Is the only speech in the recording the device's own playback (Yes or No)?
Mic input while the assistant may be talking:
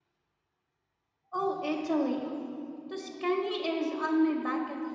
No